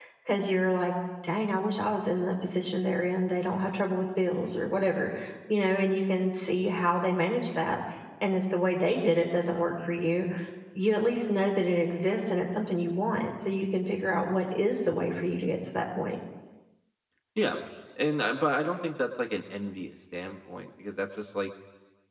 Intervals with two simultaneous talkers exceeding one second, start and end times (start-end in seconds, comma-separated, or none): none